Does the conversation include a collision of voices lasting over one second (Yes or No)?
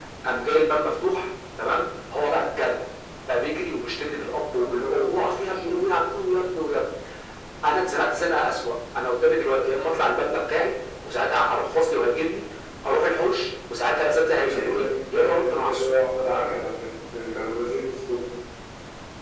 Yes